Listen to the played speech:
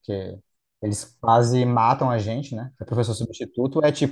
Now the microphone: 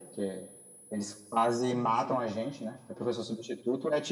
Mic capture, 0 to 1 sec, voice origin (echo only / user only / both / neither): echo only